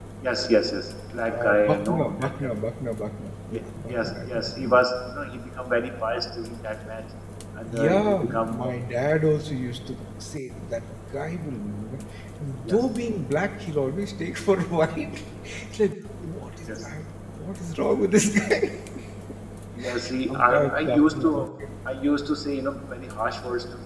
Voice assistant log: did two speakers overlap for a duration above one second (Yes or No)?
Yes